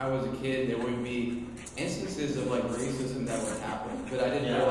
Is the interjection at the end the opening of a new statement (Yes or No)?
No